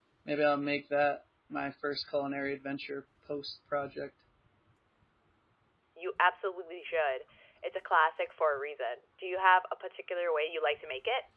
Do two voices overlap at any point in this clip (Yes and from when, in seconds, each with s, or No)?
No